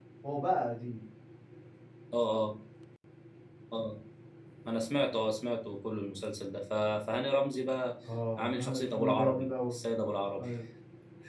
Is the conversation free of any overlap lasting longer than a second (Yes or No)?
No